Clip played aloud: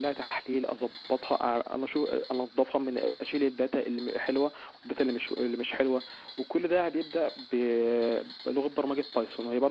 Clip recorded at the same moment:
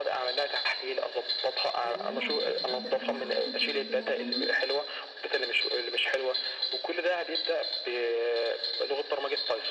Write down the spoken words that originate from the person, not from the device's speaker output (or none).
آه، اللي انا يعني ابدأ فيها او ادخل فيها وتبعتهم لي